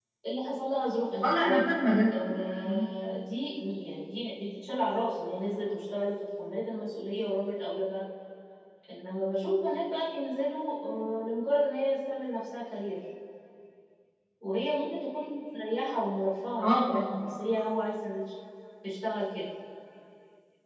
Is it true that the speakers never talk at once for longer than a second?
Yes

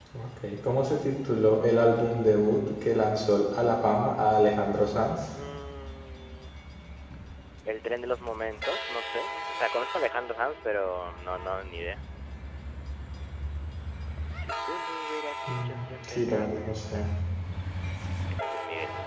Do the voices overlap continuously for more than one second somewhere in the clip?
Yes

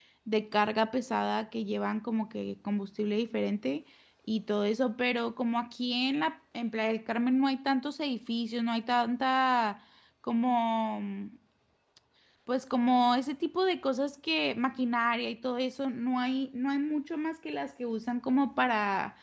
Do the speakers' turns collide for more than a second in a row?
No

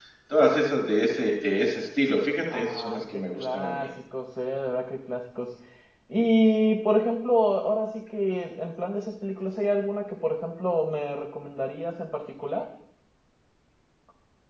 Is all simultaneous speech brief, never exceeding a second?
No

